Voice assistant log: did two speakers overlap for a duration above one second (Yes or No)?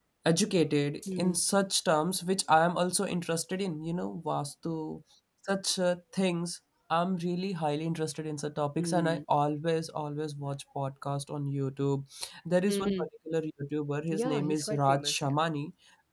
Yes